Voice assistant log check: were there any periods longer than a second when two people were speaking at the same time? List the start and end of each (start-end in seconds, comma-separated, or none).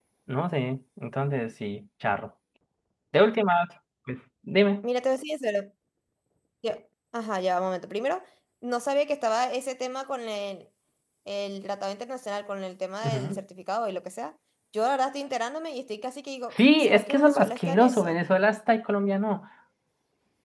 16.5-18.3